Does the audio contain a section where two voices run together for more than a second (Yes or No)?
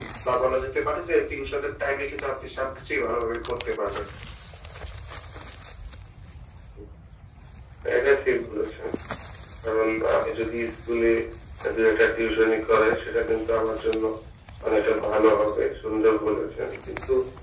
No